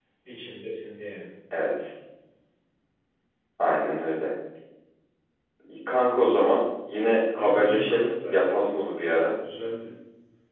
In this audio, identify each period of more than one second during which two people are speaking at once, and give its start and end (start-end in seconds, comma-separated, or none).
7.3-8.6